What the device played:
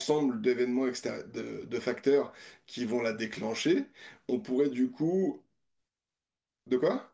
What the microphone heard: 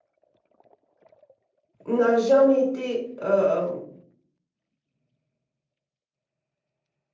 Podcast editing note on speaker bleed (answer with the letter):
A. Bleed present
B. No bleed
B